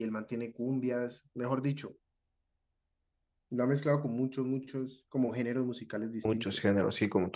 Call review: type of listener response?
taking over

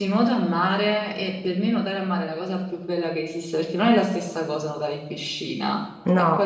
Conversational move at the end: taking over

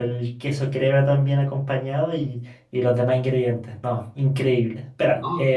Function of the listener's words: listening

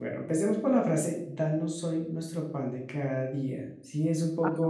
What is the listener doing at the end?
listening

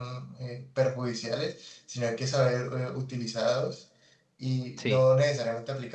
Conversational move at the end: listening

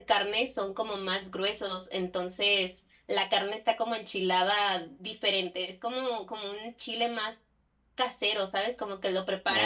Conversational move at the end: listening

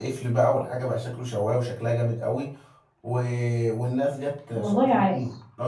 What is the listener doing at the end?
listening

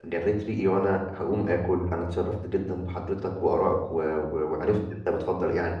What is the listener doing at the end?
listening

